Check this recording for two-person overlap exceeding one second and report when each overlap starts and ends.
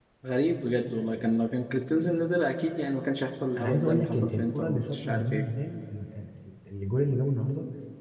3.5-5.5

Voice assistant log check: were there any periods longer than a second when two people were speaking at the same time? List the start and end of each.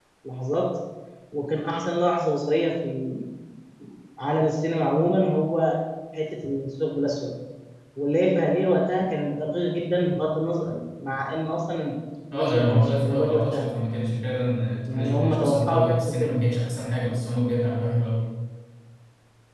12.3-13.7, 14.9-16.4

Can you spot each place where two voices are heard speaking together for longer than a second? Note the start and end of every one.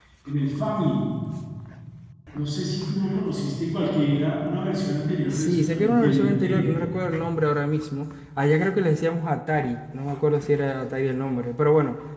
5.3-6.8

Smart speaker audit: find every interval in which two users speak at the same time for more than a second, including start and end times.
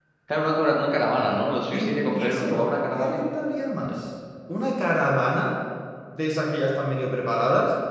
1.7-3.2

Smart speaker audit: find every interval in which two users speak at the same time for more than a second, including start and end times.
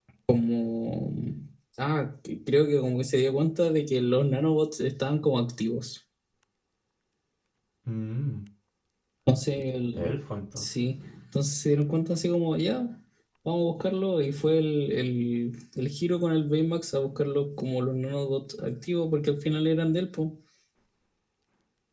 none

